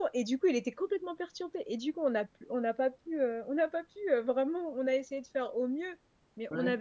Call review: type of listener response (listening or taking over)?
listening